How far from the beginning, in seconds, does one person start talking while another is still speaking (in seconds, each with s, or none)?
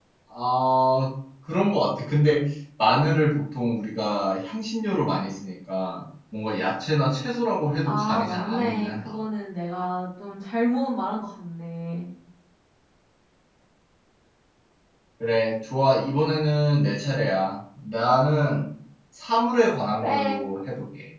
7.8 s